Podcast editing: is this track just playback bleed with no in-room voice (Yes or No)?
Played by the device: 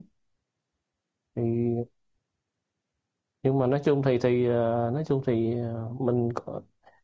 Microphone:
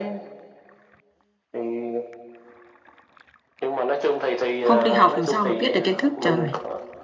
No